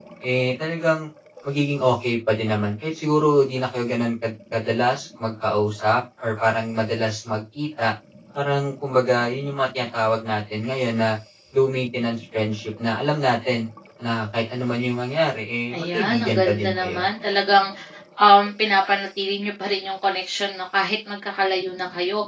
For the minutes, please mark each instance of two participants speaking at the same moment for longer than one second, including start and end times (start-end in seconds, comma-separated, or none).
15.8-17.0